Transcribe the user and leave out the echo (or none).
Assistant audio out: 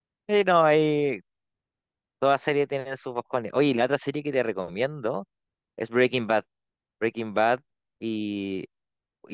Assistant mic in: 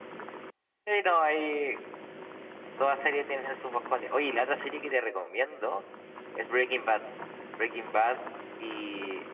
none